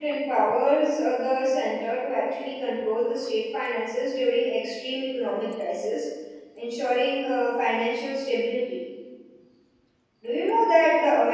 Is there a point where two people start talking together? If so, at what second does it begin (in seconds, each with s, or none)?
none